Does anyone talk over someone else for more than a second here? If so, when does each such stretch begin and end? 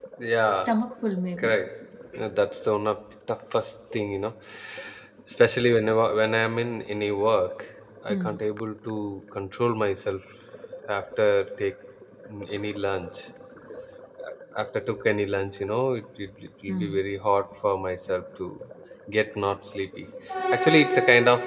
none

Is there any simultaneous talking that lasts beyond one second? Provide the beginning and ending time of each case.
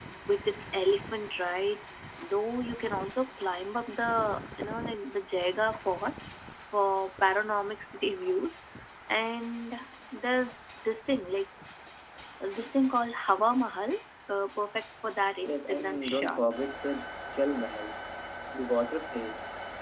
15.4-16.7

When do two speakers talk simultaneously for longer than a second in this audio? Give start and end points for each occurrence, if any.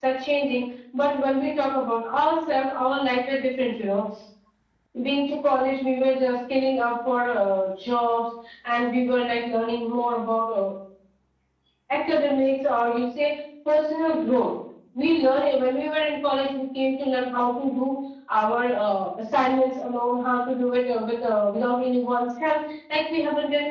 none

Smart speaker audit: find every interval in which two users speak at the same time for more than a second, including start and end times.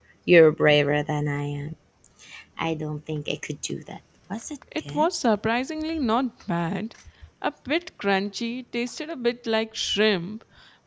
none

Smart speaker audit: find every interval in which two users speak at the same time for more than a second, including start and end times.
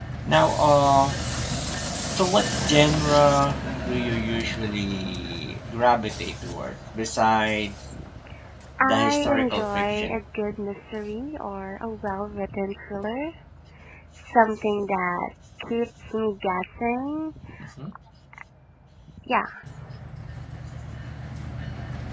8.8-10.2

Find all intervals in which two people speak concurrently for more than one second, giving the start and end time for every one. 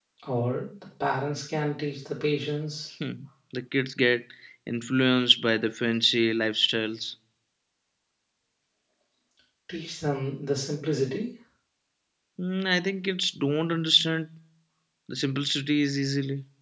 none

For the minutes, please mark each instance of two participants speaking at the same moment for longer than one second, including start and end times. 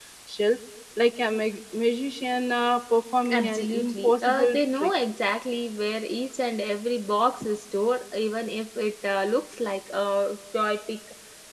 3.3-4.9

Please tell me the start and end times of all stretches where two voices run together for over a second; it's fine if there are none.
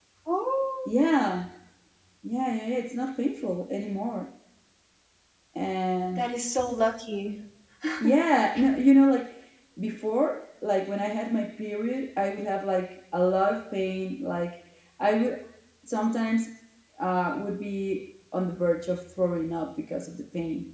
none

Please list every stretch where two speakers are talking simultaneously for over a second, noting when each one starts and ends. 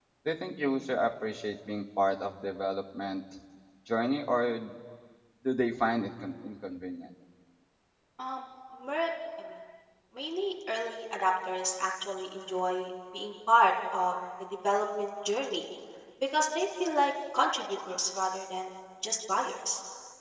none

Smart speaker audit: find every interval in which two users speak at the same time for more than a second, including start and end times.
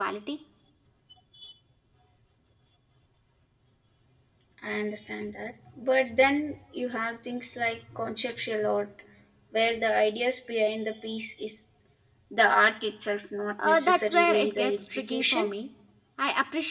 13.6-15.5

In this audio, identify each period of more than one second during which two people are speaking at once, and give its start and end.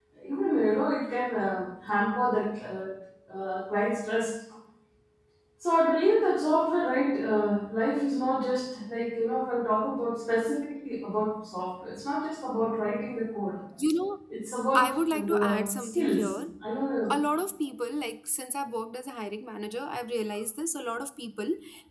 14.8-16.3

